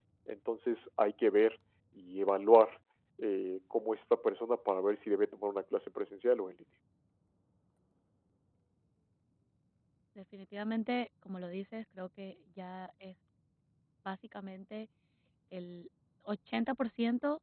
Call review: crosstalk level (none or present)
none